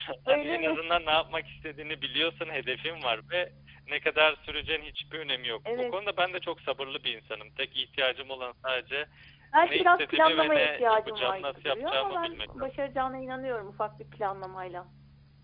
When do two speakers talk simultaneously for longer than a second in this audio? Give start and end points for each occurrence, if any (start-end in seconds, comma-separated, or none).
9.6-12.7